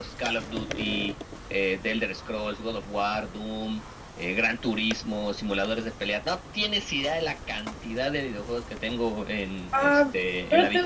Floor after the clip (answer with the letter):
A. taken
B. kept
A